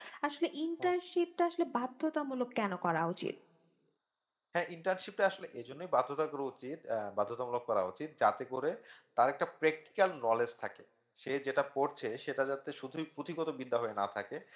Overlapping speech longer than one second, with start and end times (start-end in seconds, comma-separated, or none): none